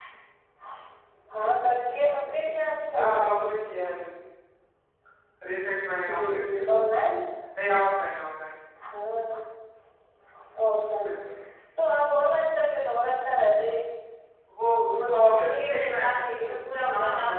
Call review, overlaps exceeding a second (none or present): present